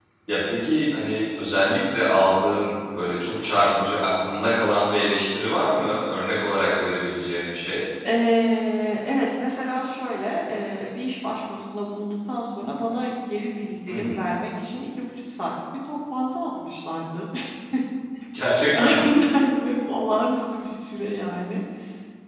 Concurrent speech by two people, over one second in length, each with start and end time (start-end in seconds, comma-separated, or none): none